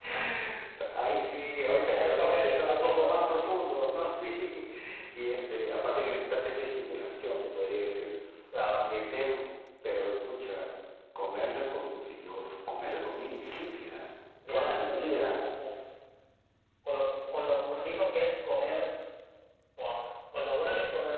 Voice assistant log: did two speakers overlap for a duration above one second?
Yes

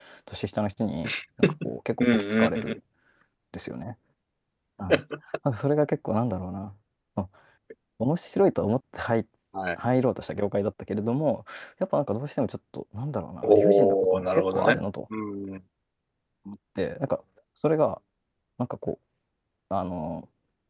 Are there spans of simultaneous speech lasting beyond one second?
Yes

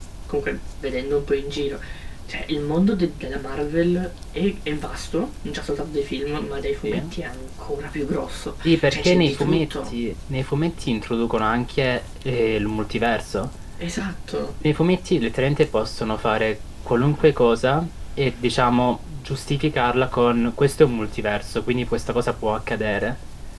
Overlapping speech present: Yes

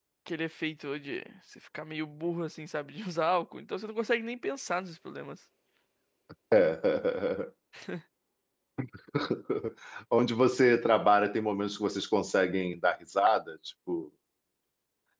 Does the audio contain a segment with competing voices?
No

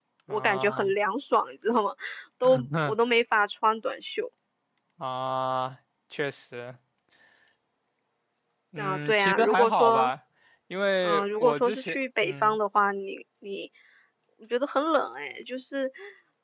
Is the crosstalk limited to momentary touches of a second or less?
No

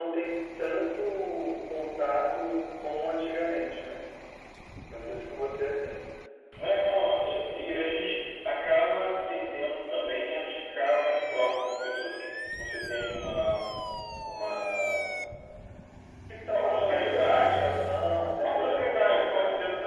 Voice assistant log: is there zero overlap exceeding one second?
No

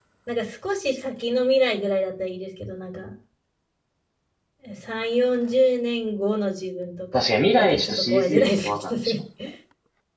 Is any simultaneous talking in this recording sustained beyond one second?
Yes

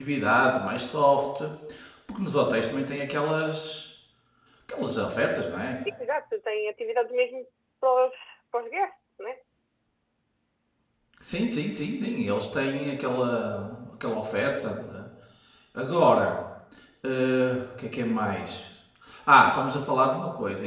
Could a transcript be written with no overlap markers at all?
Yes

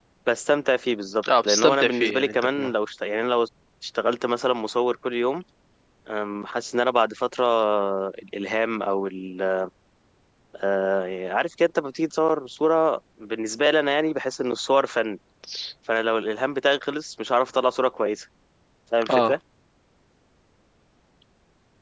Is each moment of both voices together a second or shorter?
No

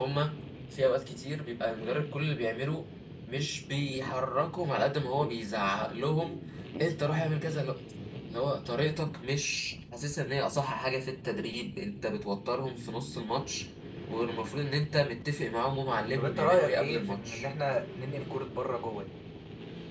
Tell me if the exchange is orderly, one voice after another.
No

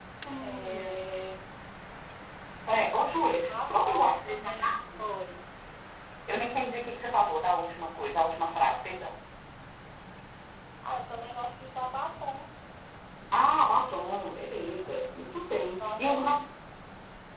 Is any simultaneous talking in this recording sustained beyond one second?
Yes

